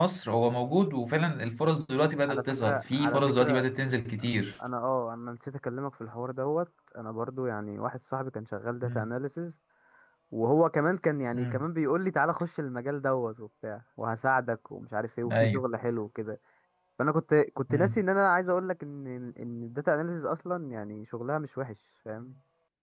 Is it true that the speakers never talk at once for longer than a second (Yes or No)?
No